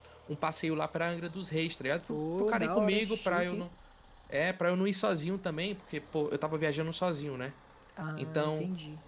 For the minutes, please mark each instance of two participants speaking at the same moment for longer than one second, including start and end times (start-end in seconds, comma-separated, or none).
2.1-3.6